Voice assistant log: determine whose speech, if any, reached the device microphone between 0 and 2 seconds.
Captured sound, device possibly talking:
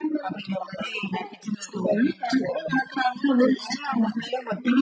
echo only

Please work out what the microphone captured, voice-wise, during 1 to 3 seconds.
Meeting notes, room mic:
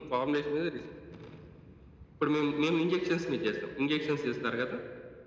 echo only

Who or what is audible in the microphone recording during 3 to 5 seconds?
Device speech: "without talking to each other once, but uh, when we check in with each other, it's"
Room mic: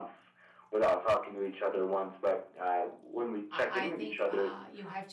both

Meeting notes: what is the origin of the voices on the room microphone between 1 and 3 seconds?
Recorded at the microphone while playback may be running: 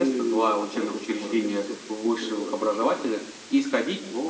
echo only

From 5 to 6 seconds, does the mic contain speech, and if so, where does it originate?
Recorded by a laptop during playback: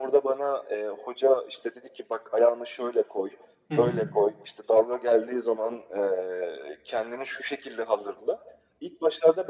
echo only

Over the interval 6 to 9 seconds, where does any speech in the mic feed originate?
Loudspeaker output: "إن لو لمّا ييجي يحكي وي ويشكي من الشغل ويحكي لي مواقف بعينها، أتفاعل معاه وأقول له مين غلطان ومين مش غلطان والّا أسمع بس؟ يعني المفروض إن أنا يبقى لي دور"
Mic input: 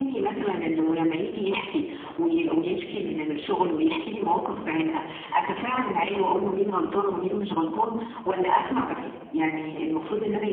echo only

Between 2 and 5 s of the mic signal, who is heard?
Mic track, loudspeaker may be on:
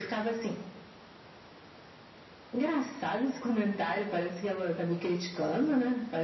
echo only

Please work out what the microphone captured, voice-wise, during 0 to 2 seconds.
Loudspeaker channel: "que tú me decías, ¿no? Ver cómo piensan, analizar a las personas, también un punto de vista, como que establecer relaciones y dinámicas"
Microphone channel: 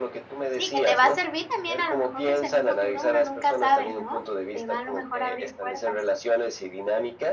both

